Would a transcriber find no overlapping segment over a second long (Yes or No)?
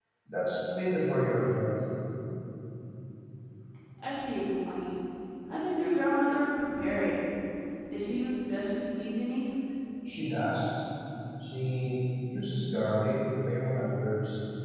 Yes